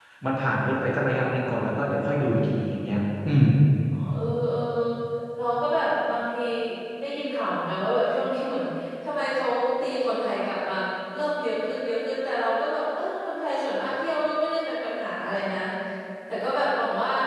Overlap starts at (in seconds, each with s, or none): none